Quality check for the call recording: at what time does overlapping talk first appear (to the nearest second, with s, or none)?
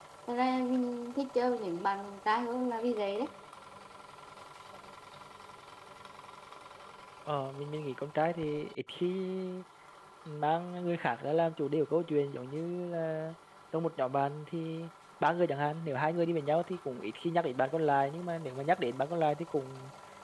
none